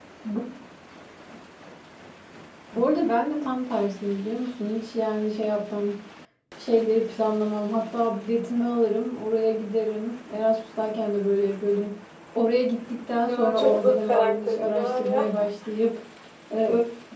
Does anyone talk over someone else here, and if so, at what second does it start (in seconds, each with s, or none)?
13.2 s